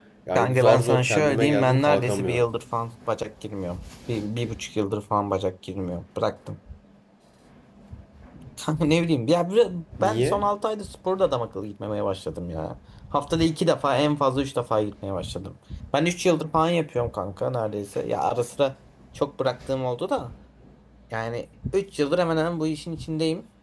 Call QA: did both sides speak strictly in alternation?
No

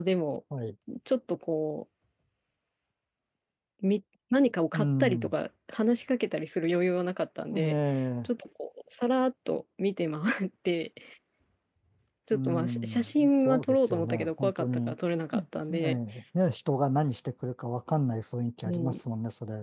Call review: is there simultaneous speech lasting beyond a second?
Yes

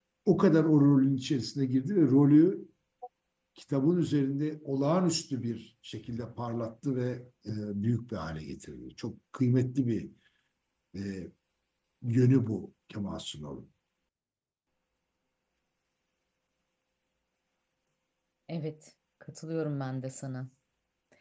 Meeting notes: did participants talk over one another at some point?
No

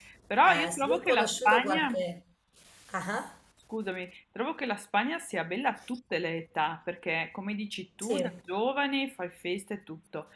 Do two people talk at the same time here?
Yes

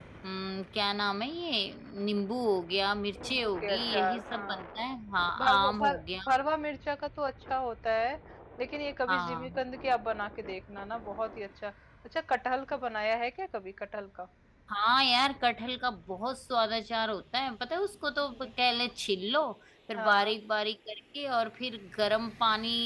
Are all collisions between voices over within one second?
No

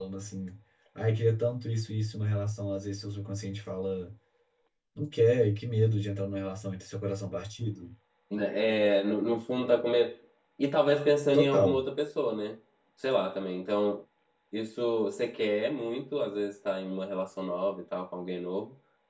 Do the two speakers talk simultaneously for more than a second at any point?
No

